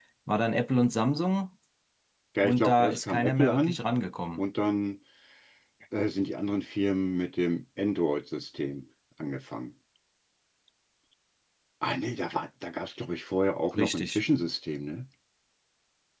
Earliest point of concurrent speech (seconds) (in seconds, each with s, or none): 2.4 s